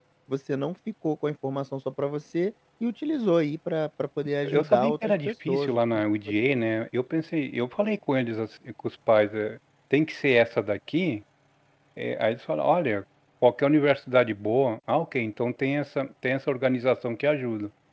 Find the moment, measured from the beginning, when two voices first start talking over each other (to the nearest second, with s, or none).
4 s